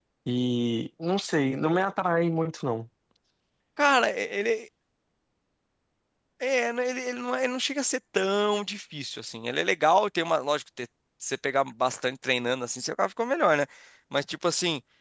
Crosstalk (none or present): none